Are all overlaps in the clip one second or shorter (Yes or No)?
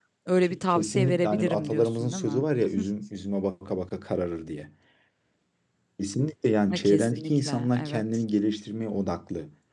No